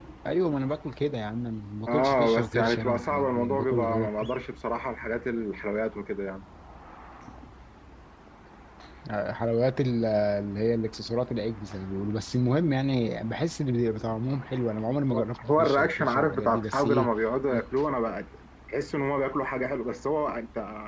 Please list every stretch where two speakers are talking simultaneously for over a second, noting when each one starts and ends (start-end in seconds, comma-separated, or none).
1.9-4.1, 15.1-17.1